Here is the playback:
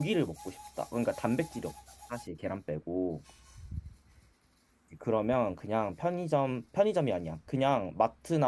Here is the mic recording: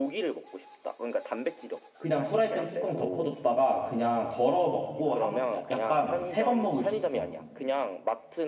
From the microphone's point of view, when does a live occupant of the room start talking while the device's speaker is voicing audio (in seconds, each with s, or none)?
2.0 s